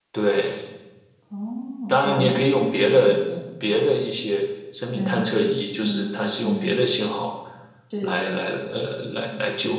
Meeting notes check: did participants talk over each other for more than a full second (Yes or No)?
Yes